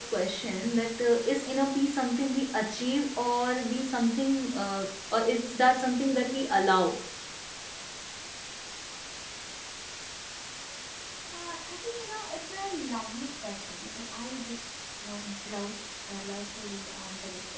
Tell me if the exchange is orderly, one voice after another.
Yes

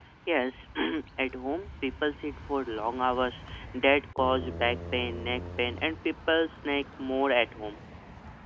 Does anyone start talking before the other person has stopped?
No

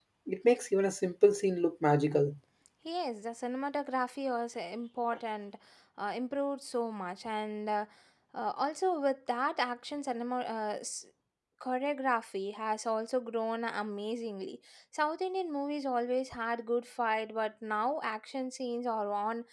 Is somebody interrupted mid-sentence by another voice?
No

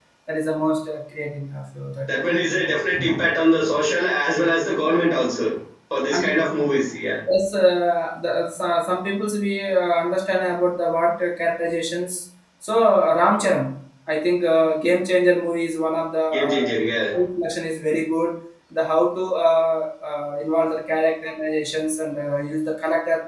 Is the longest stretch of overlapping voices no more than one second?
Yes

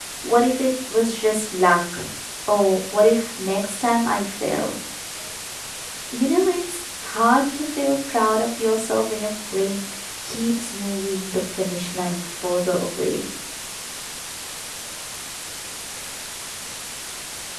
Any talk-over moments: No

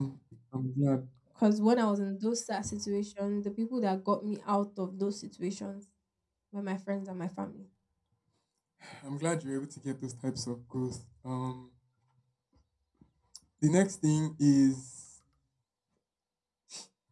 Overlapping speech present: No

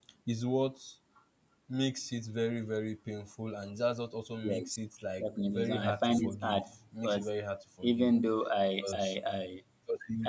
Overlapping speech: Yes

